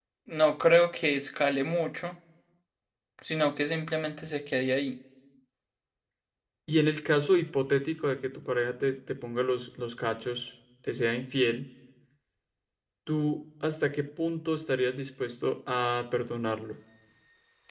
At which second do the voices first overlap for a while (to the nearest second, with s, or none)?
none